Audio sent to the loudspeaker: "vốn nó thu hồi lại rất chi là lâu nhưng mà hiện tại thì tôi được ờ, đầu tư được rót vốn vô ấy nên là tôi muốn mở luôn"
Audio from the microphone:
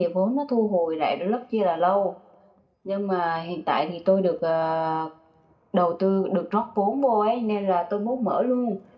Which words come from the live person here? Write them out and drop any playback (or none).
none